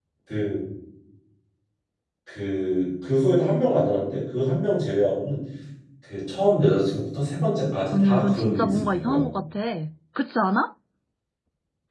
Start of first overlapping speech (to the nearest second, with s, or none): 8 s